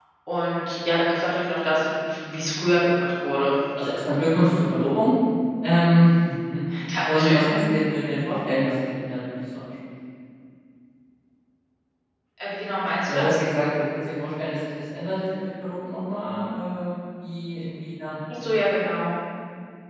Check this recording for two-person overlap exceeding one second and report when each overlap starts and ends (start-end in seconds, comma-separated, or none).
none